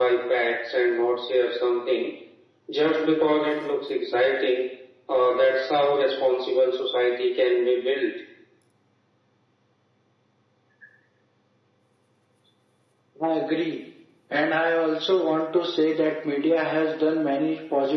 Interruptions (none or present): none